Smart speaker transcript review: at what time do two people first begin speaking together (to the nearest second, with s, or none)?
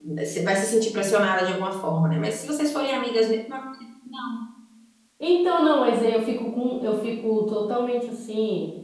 none